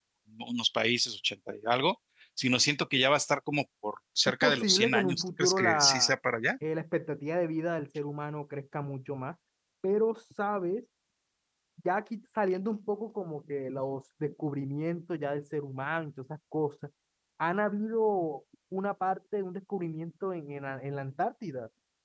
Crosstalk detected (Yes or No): Yes